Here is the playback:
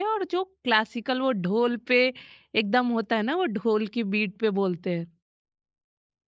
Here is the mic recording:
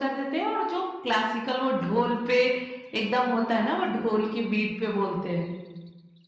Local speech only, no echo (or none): none